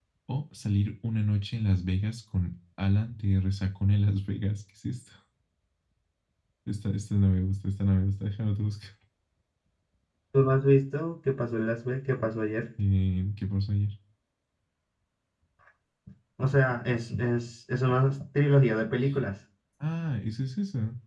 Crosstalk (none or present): none